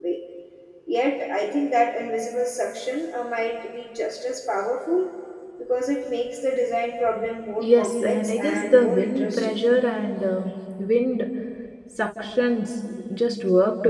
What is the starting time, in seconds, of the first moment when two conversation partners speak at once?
8 s

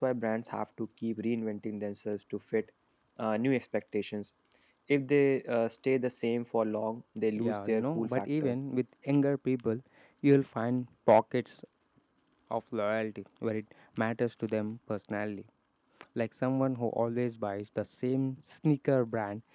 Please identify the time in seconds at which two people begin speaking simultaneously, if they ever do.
7 s

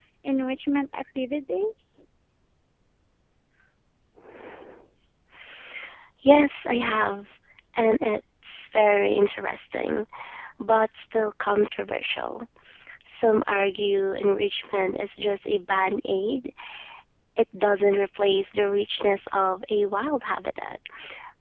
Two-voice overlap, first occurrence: none

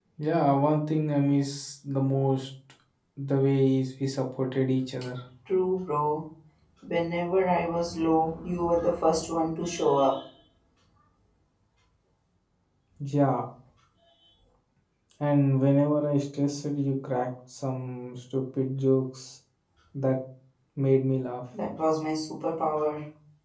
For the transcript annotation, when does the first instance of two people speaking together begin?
none

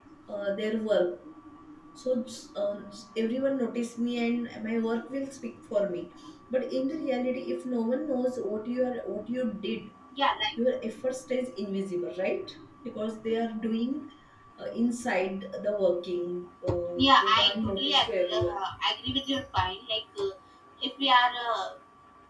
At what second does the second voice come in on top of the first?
17 s

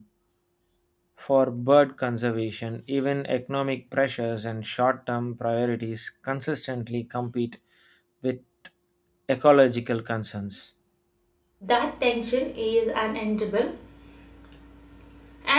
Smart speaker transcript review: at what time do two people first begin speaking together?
none

